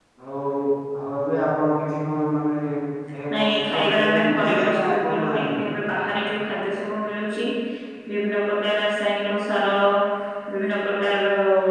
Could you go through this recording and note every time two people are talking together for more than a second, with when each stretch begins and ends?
3.4-5.6

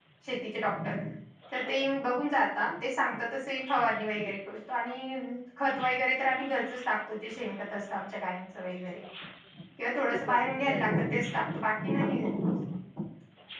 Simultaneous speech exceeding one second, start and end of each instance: 9.8-11.2

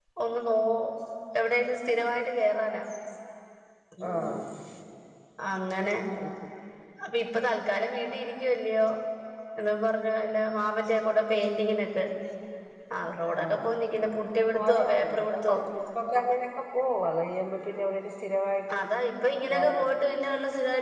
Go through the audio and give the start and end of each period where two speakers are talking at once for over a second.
14.4-15.6

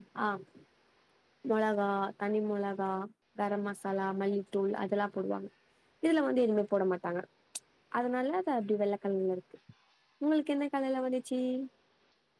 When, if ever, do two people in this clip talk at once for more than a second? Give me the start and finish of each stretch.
none

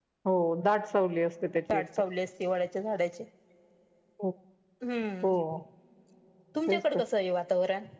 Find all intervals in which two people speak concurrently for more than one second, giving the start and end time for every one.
none

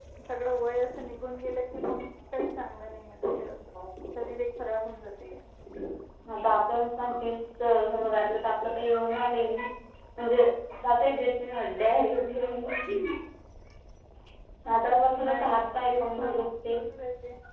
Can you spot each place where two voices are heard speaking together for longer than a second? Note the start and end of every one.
15.2-16.4

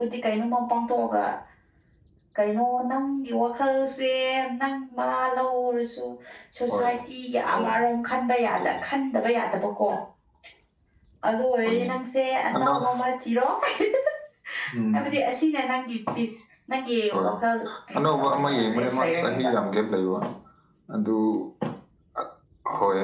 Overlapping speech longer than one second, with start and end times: 17.9-19.5

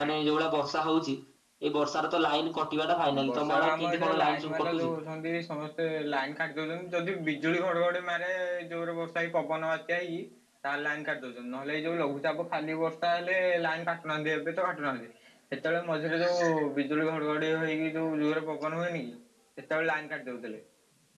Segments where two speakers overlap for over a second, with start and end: 3.3-4.9

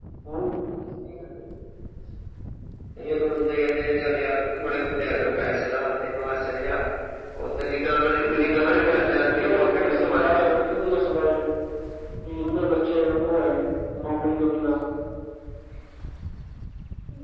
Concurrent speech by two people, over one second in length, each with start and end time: 8.3-10.6

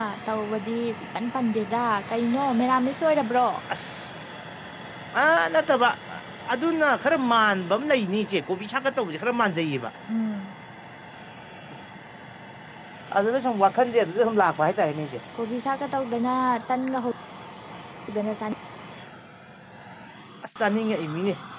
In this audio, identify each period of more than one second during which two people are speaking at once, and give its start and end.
none

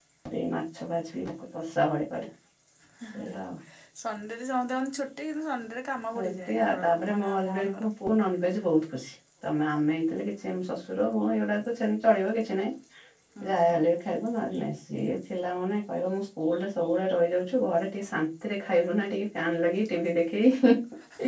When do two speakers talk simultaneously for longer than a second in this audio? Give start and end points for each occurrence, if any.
6.2-7.9

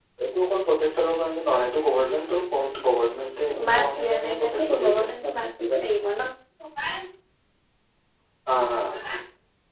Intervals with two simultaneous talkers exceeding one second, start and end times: 3.7-5.0

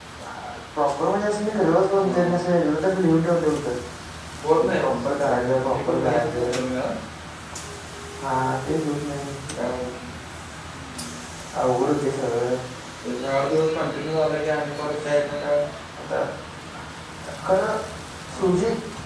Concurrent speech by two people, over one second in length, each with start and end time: 4.8-6.6

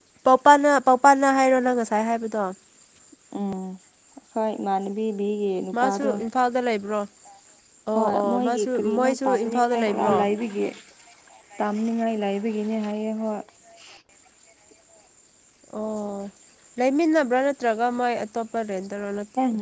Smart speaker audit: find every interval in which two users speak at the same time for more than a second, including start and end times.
8.0-10.1

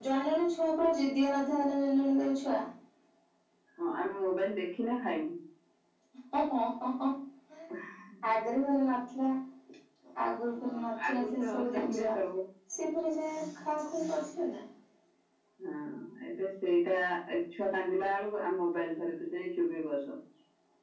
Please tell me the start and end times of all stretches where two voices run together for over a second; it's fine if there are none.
10.6-12.1

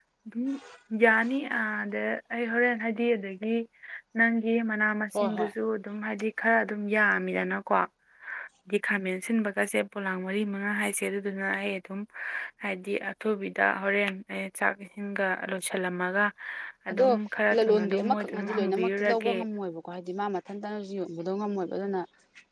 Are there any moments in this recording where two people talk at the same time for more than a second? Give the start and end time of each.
17.5-19.3

